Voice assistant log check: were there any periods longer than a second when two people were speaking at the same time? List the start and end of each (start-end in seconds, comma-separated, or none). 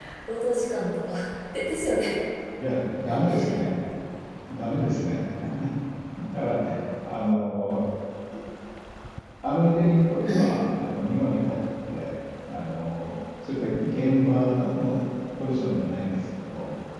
none